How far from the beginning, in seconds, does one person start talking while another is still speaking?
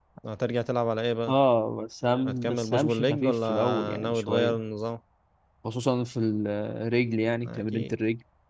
2 s

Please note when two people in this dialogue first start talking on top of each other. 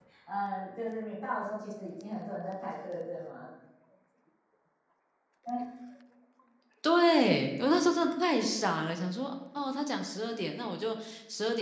none

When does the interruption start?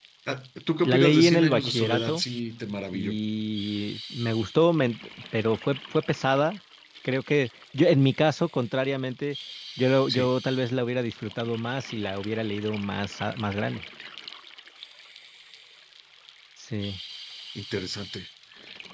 1 s

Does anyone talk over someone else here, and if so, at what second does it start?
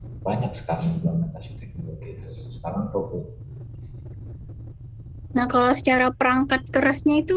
none

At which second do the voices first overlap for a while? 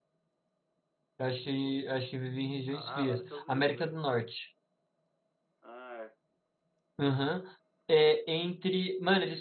3 s

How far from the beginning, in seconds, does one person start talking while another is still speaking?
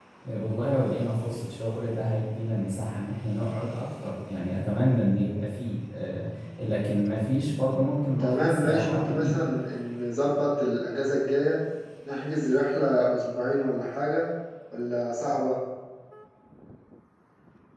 8 s

